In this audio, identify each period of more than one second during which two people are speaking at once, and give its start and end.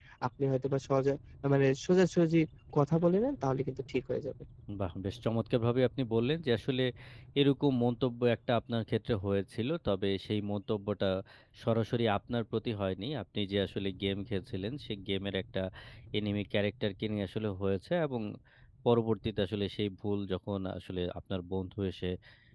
none

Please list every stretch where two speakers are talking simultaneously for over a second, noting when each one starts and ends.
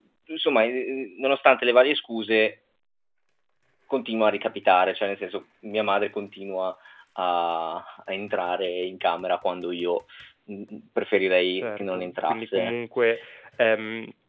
11.5-12.7

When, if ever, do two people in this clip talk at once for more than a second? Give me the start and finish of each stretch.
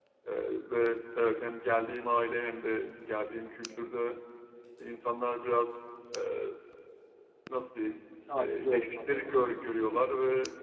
8.4-10.1

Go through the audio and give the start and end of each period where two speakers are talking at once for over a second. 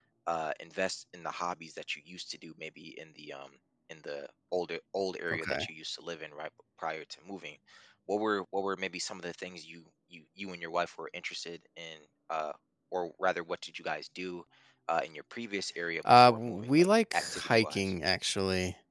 16.1-17.9

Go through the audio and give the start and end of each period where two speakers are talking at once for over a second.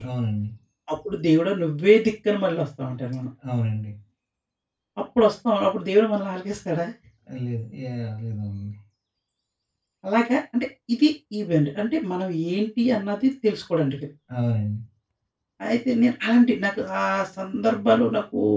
none

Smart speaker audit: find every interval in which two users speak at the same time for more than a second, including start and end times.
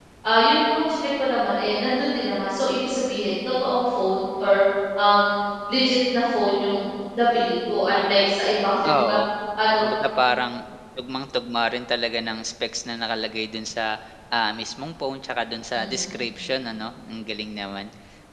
none

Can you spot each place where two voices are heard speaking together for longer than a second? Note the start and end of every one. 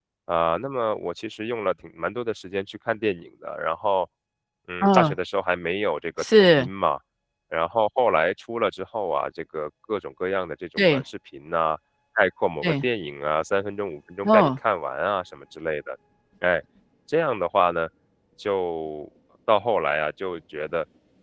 none

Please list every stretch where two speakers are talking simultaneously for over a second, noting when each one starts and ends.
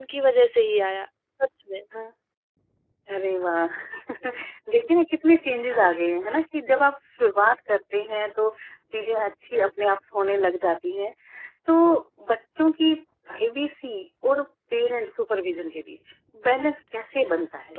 none

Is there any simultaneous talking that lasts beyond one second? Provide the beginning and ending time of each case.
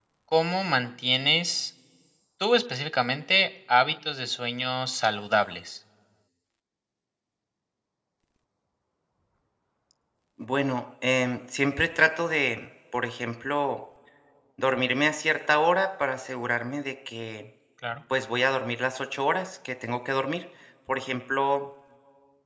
none

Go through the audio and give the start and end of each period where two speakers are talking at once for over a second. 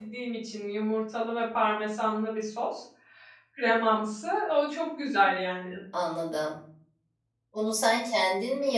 none

